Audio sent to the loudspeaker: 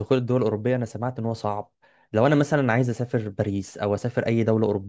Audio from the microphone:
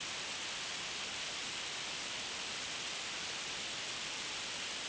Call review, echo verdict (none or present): none